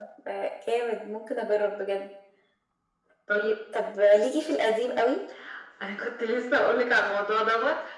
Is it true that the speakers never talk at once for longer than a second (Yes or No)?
Yes